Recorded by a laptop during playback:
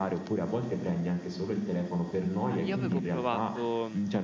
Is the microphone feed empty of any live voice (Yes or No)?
No